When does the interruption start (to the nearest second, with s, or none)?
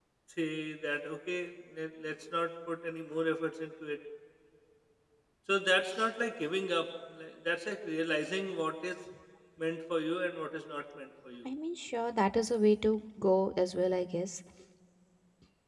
none